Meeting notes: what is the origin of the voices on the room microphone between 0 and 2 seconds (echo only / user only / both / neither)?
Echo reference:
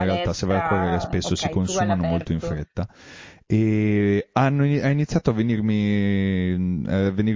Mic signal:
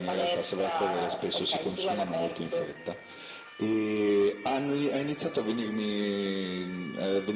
echo only